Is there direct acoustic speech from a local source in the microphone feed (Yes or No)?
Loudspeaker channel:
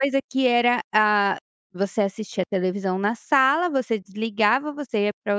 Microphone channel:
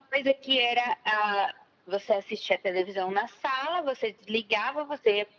No